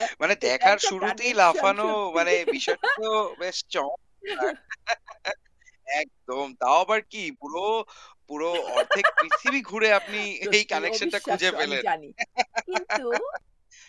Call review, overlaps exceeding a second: present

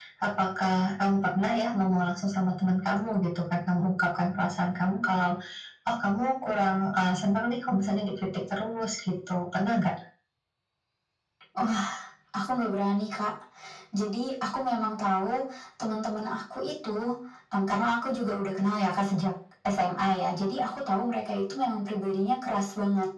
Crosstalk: none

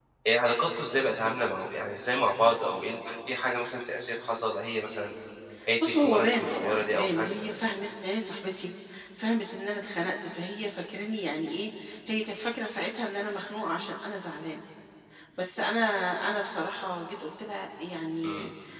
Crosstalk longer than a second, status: present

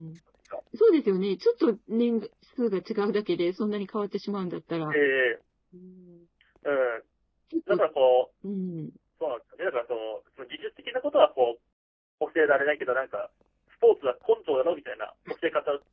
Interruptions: none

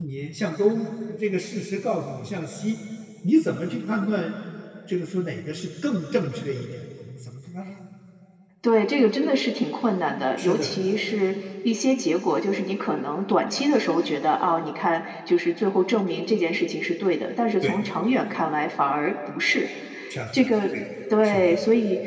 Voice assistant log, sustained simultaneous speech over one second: none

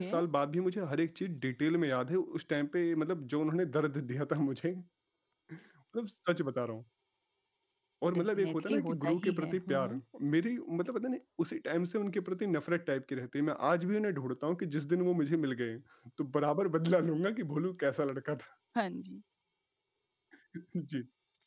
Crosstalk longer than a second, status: present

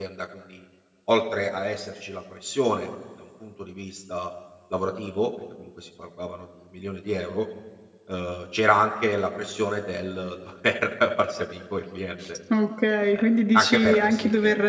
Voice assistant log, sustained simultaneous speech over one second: present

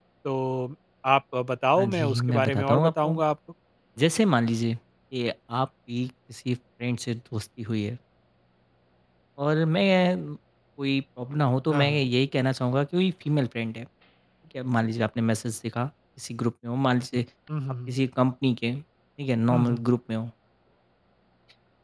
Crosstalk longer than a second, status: present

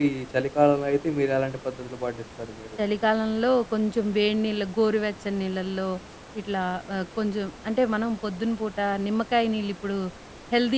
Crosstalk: none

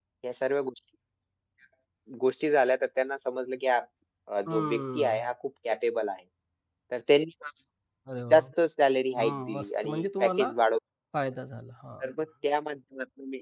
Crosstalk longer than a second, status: present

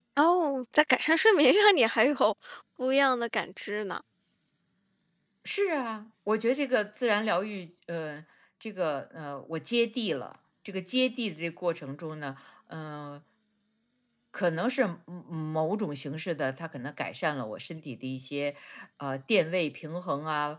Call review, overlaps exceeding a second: none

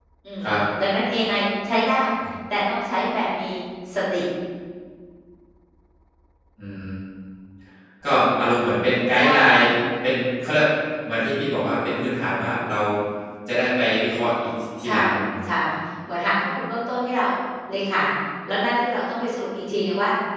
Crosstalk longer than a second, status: none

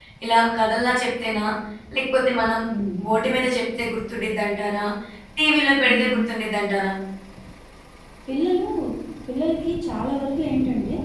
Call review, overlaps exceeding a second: none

